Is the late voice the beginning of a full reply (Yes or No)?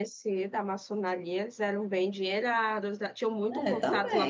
No